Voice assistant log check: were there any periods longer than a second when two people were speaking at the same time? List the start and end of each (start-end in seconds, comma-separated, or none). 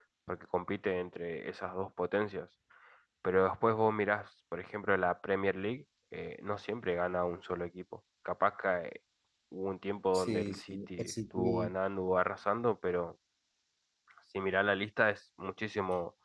10.1-11.7